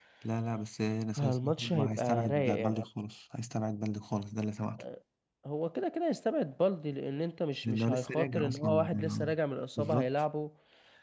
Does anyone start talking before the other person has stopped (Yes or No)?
Yes